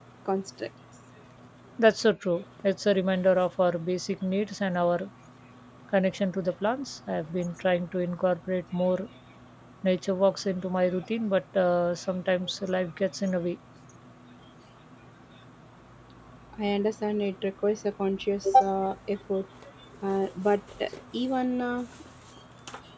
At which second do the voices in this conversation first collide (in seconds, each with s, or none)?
none